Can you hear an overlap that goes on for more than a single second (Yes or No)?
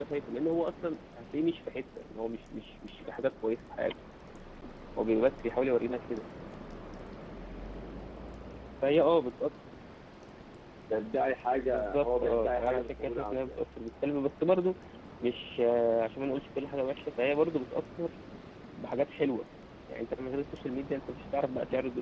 Yes